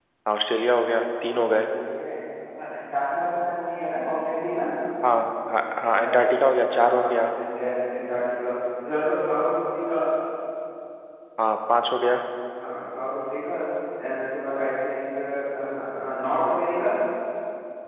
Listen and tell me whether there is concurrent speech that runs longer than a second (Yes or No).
No